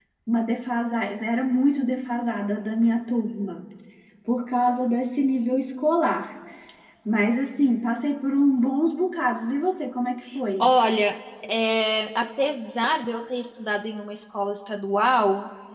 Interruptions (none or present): none